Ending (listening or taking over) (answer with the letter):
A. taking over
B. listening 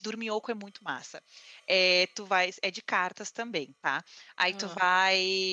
B